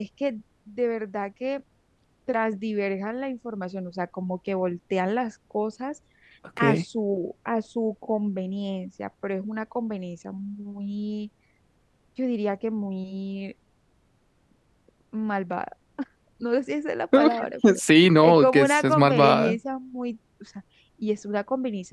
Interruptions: present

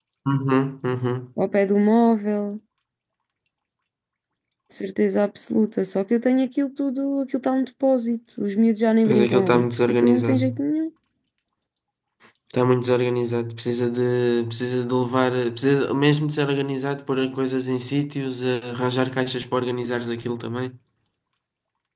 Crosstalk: present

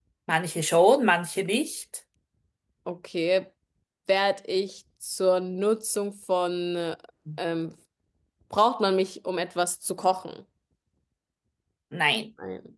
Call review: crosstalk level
none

